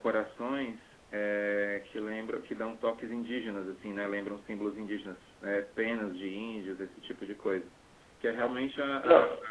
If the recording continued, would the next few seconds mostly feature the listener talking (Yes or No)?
No